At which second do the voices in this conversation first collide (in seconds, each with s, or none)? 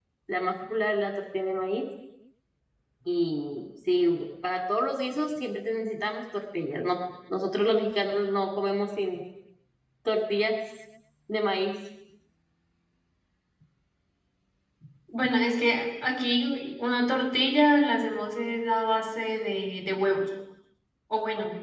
none